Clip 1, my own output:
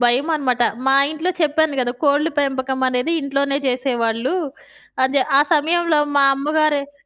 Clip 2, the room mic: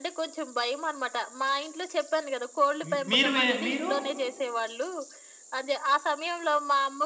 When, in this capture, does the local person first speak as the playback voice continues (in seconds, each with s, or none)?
2.8 s